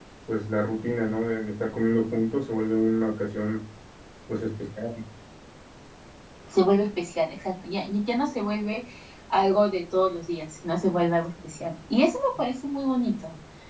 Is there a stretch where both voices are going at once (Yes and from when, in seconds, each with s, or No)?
No